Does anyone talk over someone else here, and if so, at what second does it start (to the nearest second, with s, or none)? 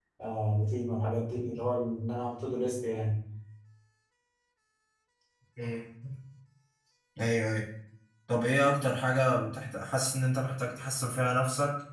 none